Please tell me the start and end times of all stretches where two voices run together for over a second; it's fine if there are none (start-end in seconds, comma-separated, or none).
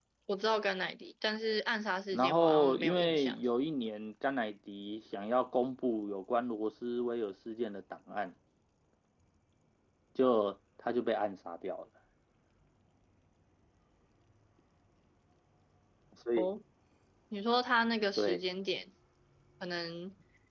2.1-3.4